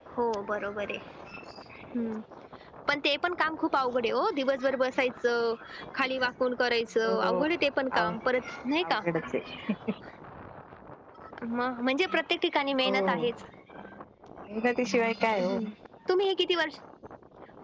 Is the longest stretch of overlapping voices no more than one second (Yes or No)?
Yes